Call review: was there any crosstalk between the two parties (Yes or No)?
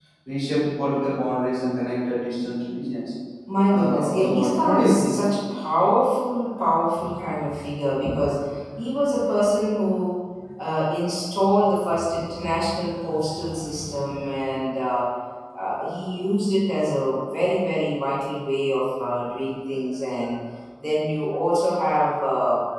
Yes